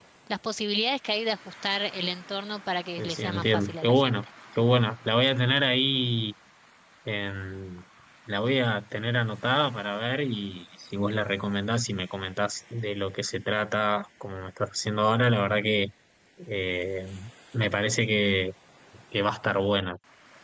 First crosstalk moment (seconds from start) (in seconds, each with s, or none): 3.0 s